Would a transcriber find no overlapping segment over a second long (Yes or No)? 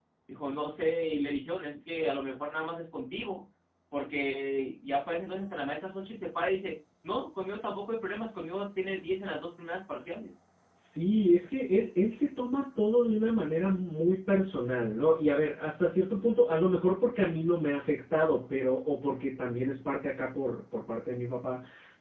Yes